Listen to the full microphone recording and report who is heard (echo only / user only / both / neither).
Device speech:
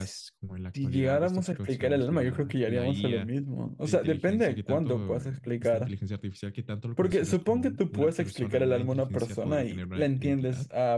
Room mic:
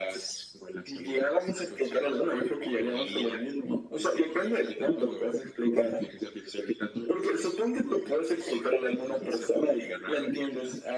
echo only